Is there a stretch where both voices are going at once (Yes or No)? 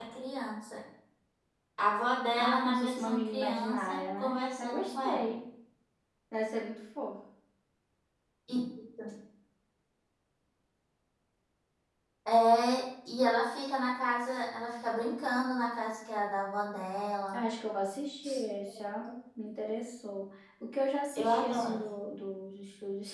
Yes